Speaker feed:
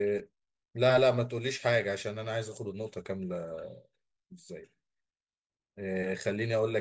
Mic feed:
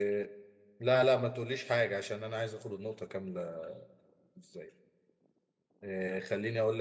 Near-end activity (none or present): none